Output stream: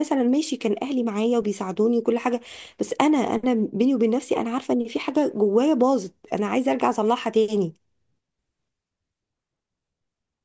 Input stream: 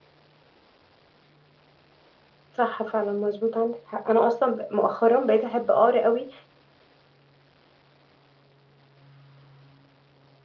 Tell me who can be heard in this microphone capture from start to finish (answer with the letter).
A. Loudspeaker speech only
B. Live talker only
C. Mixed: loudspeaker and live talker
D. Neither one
B